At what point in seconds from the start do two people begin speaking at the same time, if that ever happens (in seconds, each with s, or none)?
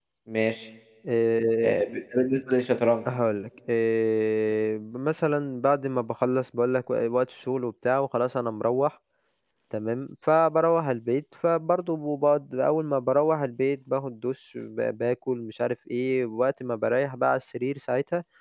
none